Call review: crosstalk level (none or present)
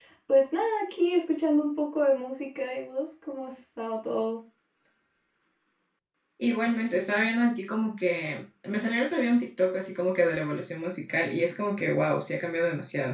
none